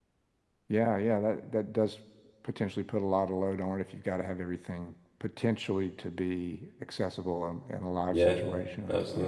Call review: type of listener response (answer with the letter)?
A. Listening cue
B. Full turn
B